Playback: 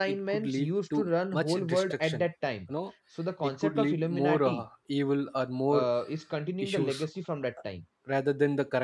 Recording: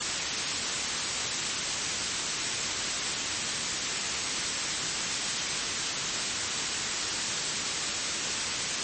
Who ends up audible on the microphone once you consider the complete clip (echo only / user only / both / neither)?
neither